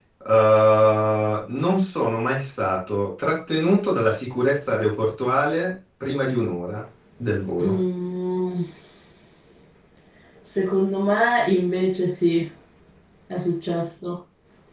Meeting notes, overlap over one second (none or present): none